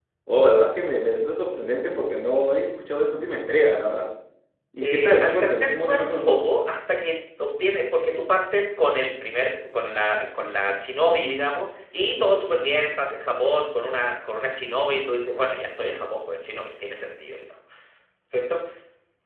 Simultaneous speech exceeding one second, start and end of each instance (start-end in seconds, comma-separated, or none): 4.8-6.4